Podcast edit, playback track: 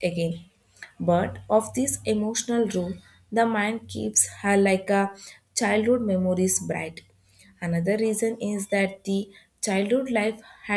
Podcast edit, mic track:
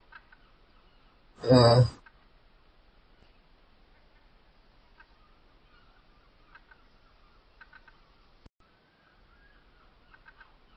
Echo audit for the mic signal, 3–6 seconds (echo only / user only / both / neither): neither